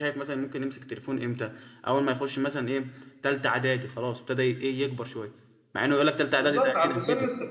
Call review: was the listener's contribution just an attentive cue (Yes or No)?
No